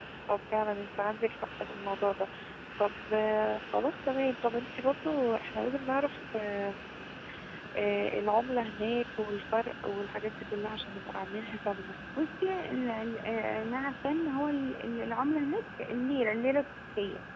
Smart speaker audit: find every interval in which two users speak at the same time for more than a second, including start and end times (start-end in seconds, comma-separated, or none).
none